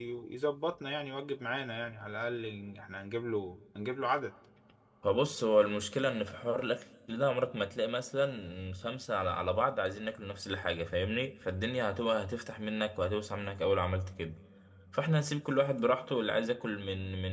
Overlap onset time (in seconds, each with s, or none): none